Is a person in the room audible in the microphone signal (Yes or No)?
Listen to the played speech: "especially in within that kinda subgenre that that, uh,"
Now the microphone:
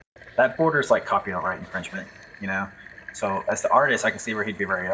Yes